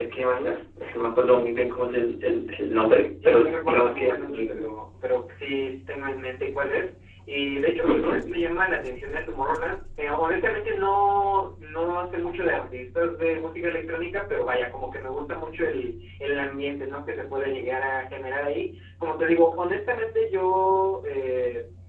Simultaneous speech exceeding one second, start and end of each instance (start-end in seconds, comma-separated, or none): 3.2-4.6